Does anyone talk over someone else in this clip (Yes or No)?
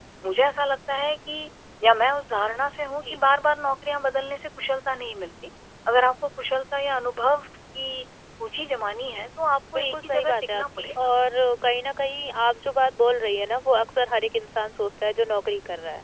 Yes